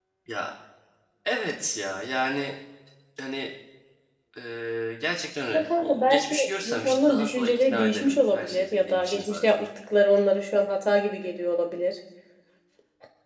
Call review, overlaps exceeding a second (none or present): present